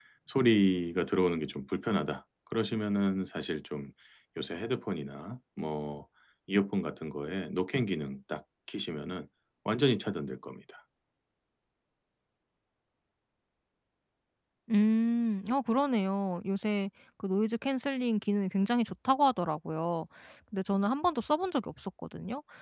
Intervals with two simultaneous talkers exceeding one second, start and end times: none

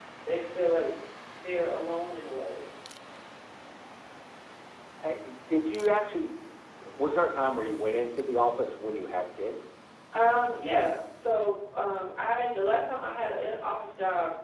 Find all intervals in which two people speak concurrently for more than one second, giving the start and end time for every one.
none

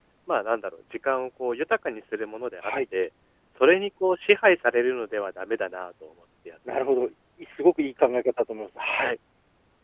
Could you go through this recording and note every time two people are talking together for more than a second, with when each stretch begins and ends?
none

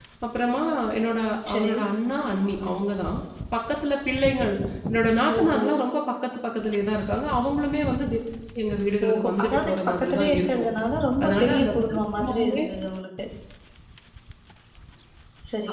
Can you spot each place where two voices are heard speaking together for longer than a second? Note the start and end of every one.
9.1-10.7, 11.2-12.6

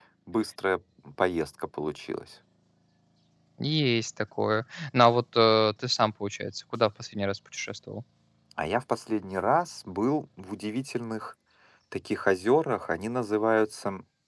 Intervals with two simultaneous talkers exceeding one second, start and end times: none

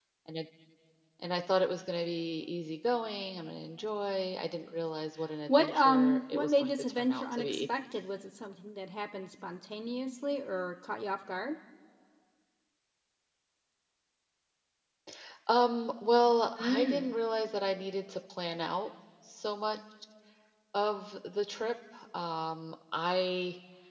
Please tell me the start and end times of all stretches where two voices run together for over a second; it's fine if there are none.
5.6-7.6

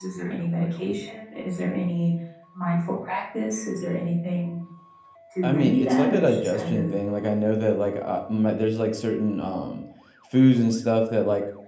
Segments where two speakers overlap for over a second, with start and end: 5.4-6.8

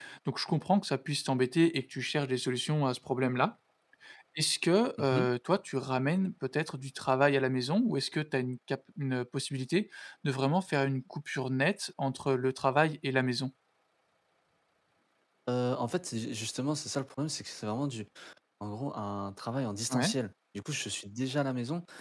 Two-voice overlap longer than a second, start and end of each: none

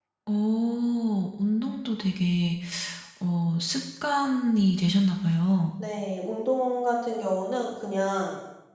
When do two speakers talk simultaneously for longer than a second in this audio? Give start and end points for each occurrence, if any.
none

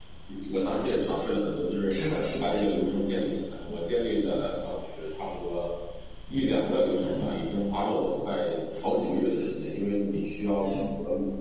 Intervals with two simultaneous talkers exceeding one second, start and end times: none

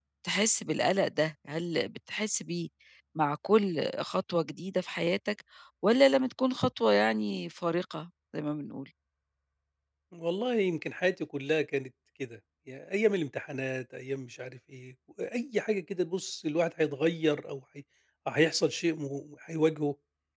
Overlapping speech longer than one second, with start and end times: none

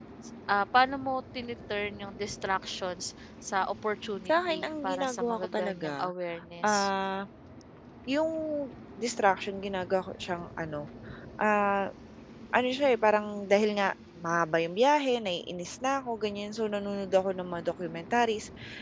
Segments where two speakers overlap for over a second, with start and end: 4.3-6.1

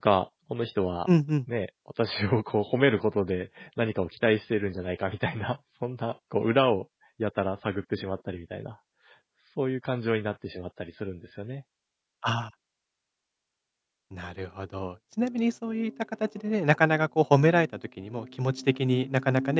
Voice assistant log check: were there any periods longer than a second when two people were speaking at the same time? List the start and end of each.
none

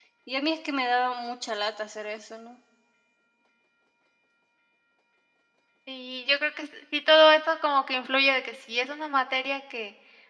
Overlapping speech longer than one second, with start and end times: none

